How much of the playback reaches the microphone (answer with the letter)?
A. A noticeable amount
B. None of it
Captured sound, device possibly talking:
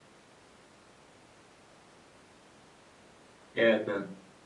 B